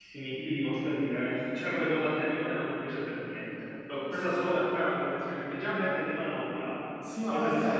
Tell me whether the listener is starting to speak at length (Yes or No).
Yes